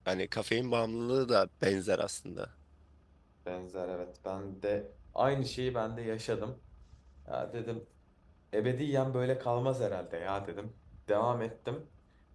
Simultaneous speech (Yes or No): No